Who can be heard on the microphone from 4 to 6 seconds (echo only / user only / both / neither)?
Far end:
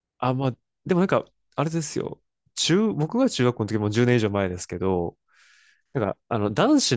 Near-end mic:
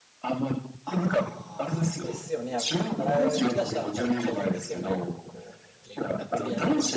both